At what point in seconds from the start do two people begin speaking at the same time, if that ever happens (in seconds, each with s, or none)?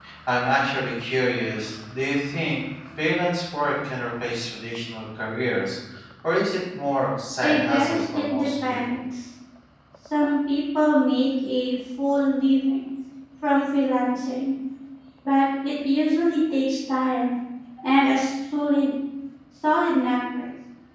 7.4 s